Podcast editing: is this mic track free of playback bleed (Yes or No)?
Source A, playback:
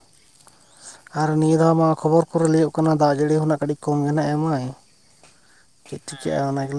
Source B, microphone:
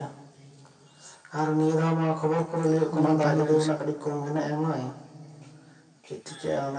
No